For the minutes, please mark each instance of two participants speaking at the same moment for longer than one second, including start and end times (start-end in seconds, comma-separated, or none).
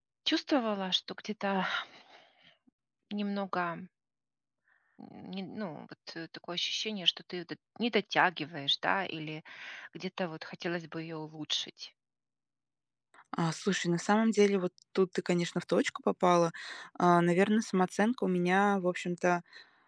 none